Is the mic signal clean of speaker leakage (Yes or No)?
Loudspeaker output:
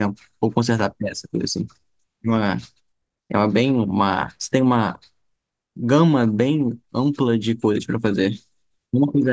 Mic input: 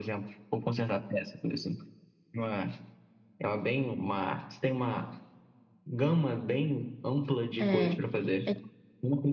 No